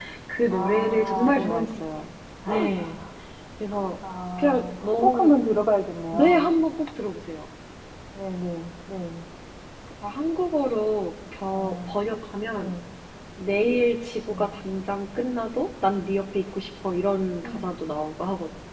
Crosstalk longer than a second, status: present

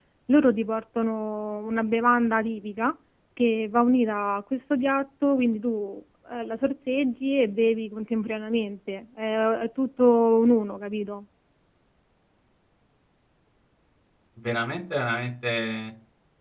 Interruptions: none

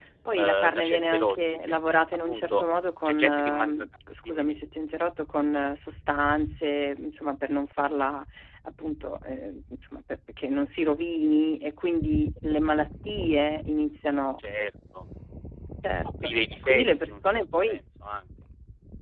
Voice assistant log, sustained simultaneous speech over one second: present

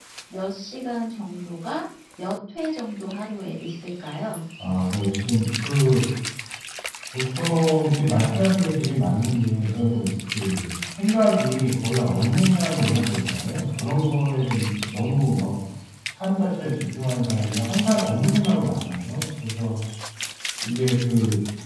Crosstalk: none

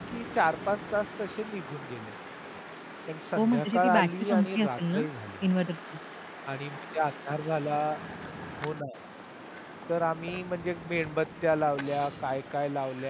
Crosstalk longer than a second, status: present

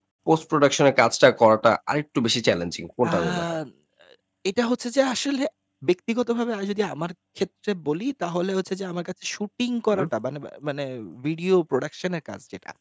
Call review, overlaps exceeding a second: none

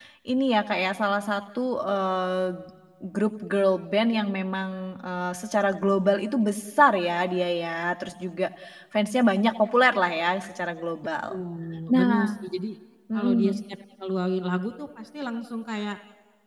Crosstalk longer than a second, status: none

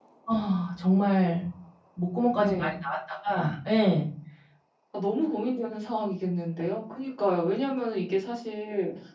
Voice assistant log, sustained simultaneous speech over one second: none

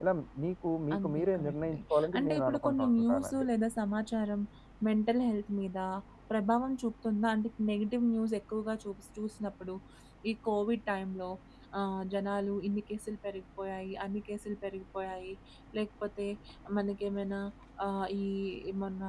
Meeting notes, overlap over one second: present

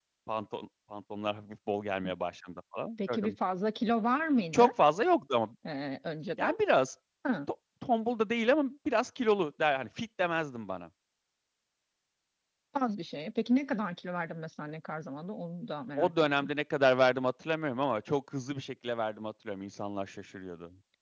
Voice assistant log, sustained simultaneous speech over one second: none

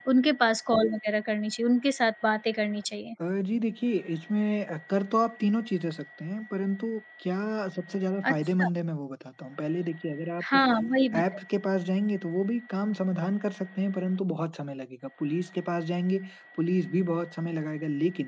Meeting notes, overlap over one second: none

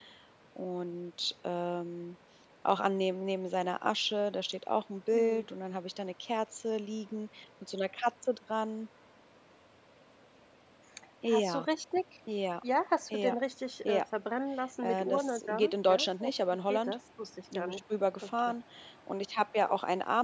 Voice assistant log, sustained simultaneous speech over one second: present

